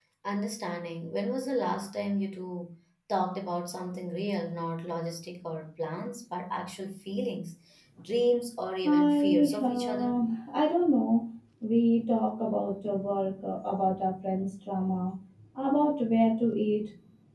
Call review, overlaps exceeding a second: present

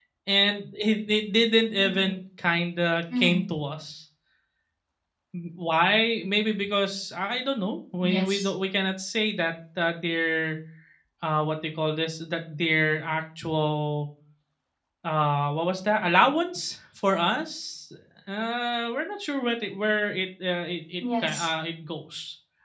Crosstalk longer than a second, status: none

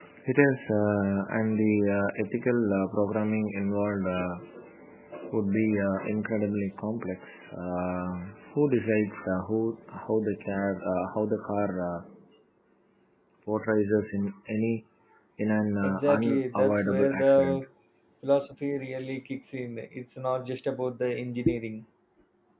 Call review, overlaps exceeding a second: present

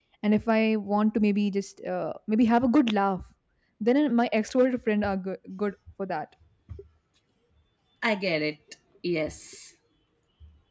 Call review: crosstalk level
none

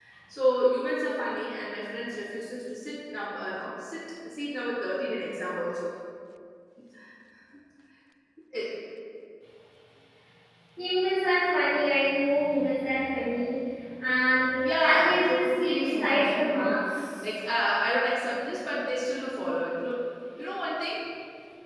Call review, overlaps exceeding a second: present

